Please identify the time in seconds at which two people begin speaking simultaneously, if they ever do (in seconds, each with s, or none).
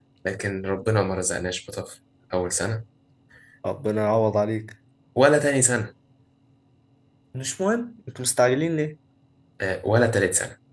none